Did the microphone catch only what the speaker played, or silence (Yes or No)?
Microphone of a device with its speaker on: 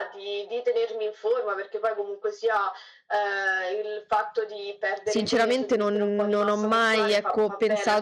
No